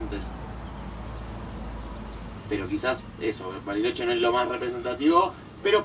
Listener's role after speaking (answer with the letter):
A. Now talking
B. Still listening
B